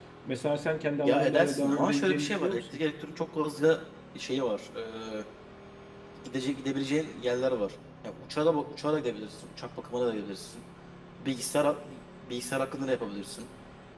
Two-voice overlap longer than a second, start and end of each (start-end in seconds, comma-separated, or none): 1.1-2.8